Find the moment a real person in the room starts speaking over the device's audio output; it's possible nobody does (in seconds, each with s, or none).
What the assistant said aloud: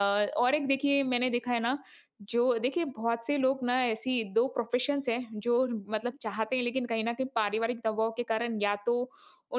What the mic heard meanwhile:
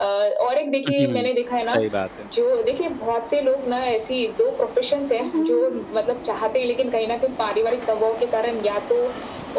0.9 s